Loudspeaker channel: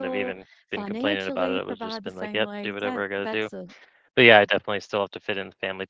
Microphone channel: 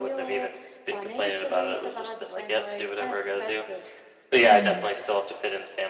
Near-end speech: present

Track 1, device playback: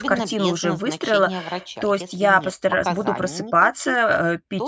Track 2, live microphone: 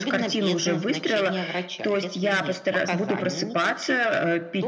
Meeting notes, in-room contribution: none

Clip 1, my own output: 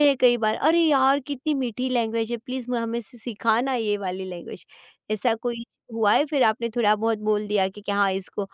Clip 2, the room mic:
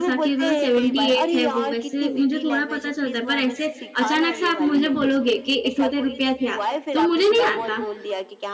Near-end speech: present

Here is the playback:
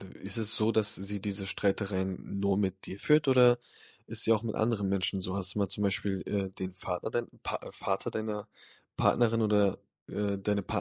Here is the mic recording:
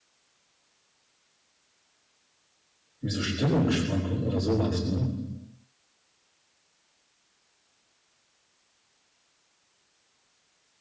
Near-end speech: present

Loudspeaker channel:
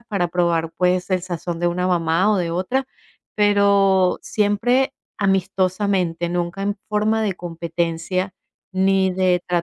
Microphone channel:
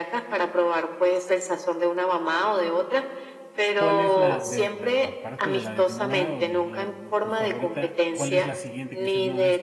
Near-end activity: present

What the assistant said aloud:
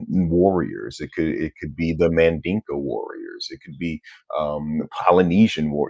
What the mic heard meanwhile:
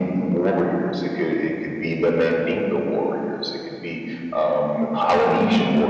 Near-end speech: none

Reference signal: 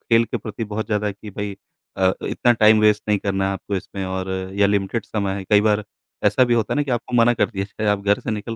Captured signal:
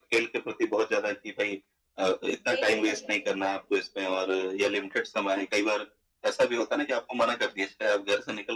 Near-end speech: present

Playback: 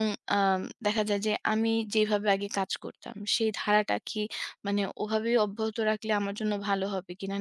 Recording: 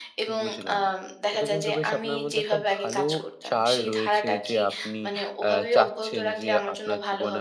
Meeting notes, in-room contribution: present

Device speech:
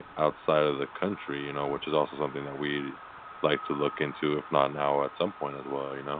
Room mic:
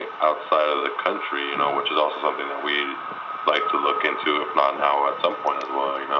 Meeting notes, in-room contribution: none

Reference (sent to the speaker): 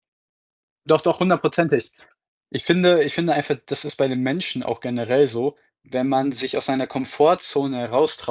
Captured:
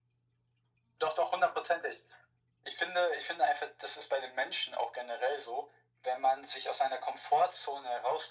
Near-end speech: none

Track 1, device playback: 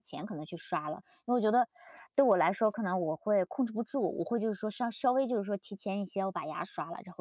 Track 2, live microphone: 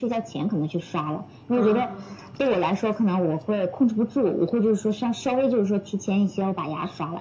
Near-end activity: present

